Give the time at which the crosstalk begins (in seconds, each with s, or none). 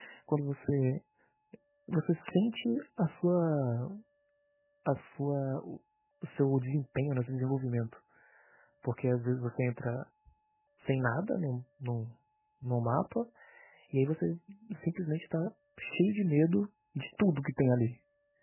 none